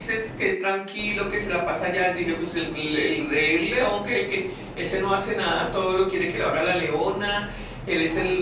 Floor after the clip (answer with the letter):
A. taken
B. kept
B